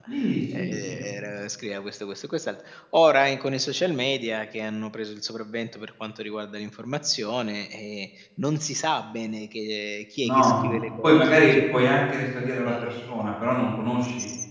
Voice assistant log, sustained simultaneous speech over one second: present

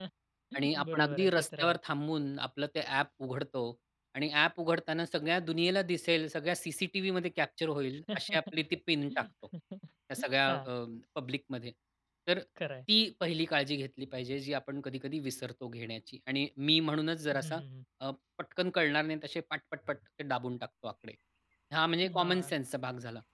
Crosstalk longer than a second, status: present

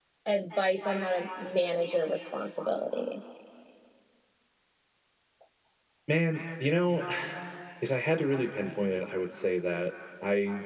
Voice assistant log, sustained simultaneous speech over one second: none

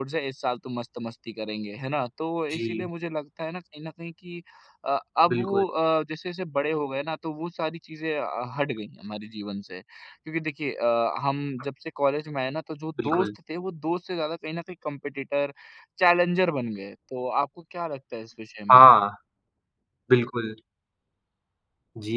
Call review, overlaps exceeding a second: none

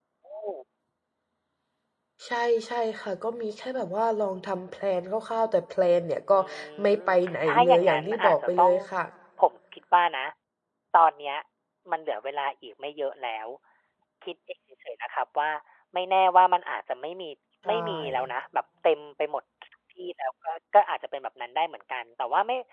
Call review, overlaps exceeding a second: present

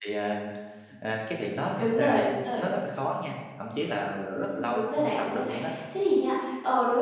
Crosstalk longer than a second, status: present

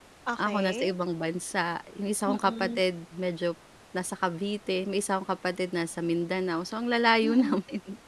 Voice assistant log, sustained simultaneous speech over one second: none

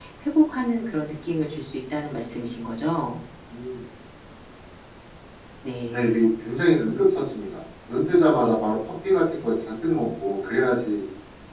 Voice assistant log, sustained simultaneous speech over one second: none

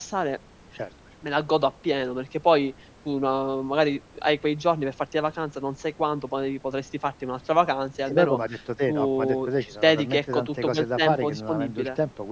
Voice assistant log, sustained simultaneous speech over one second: present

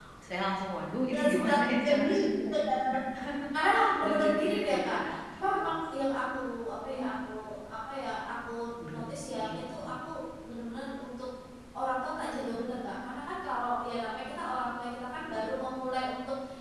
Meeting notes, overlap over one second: present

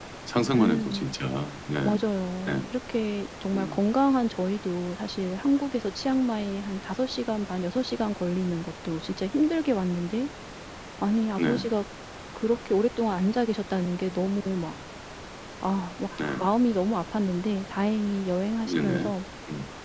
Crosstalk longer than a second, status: none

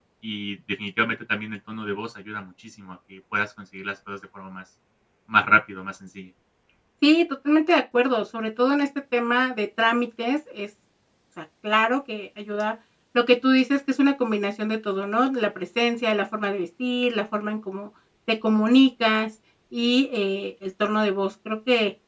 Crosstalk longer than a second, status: none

